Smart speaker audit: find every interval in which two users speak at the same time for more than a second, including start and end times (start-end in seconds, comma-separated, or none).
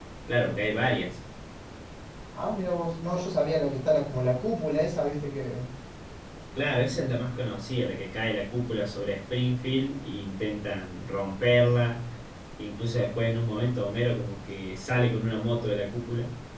none